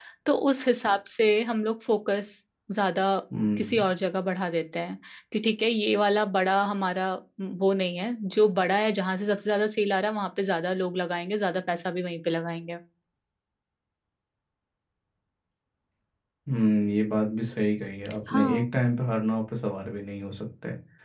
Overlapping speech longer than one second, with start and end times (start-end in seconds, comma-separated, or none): none